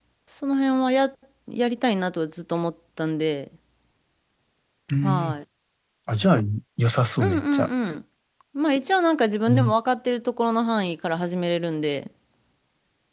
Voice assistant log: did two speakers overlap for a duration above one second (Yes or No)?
No